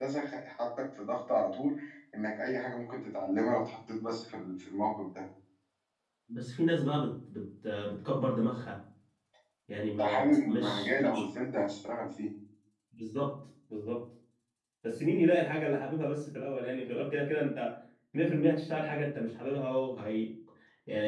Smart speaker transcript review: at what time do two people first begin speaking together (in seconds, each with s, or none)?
10.0 s